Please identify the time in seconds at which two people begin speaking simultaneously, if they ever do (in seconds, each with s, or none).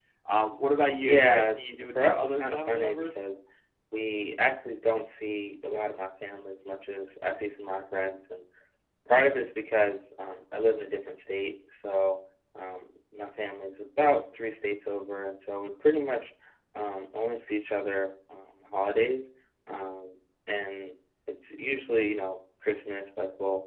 1.0 s